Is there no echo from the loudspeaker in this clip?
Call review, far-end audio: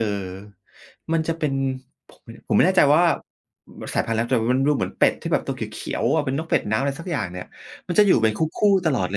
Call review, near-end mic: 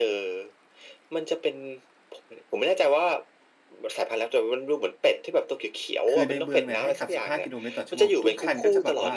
No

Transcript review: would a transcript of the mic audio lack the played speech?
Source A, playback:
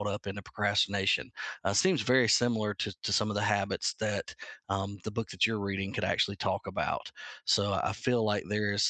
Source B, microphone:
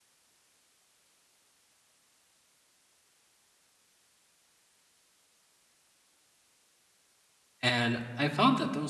Yes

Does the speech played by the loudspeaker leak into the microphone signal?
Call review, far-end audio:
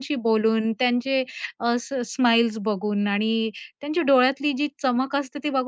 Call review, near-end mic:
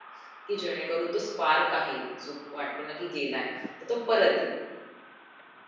No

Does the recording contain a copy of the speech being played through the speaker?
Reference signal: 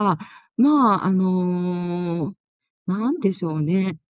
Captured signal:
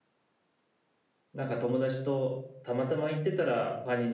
No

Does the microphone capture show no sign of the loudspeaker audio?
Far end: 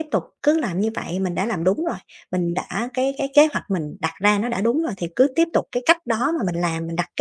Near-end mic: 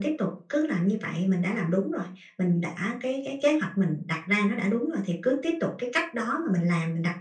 No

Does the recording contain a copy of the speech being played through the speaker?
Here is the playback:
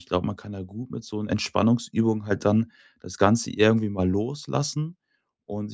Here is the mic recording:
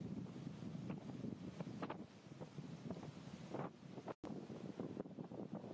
No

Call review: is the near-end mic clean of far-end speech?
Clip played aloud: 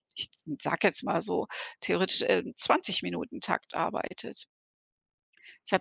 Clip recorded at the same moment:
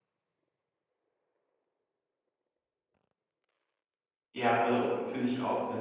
Yes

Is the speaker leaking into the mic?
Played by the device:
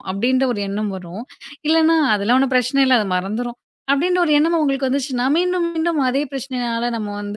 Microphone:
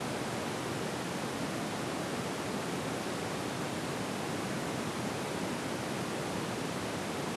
No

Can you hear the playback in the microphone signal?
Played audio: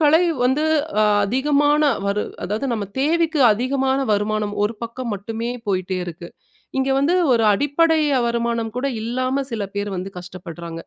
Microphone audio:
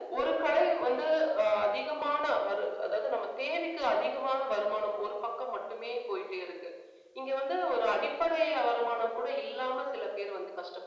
Yes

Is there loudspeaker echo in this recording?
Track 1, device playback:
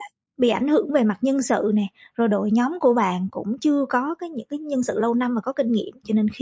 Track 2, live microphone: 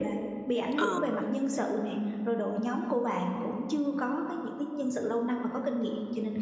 Yes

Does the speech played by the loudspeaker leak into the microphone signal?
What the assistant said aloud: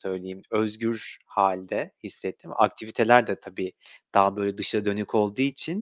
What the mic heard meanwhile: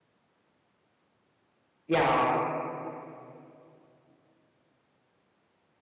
No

